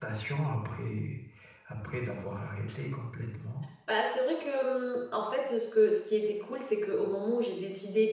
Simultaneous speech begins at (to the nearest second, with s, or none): none